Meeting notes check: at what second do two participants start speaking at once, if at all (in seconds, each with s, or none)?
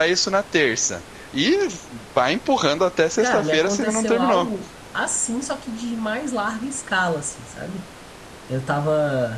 3.2 s